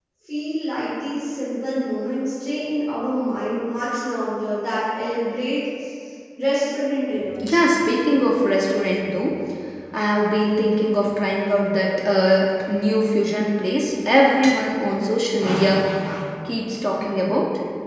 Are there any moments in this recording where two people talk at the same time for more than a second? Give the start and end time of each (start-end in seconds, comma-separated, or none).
none